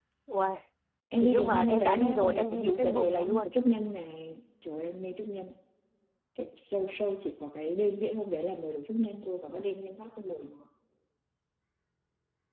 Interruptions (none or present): present